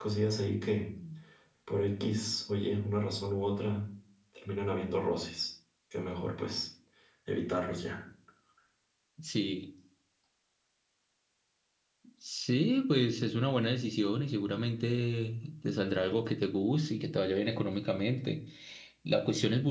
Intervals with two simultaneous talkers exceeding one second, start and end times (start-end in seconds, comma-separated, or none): none